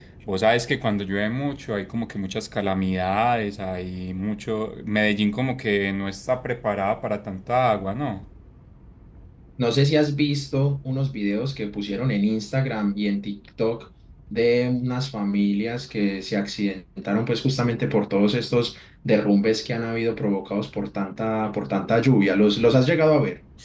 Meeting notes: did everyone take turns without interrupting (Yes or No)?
Yes